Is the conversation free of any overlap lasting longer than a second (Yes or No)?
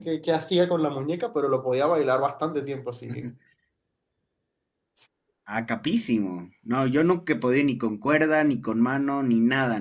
Yes